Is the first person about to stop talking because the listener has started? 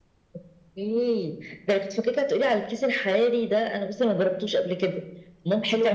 Yes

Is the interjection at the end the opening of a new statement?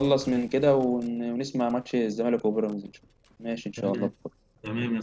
Yes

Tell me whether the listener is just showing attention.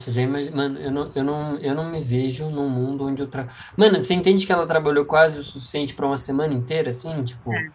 Yes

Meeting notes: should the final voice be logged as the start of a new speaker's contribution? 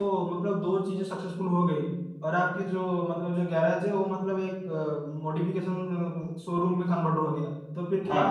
No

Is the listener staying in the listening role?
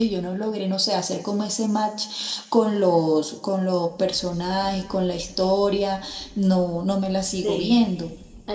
No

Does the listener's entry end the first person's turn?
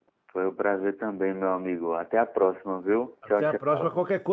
Yes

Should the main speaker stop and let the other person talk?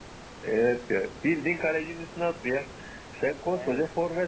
No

